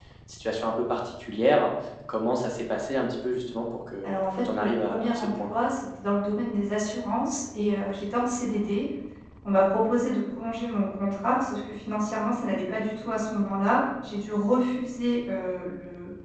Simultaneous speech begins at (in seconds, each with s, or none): 4.0 s